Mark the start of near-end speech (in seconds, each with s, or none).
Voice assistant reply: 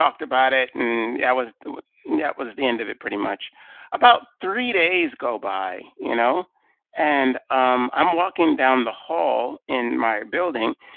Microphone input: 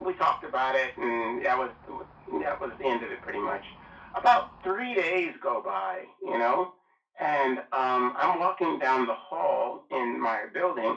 none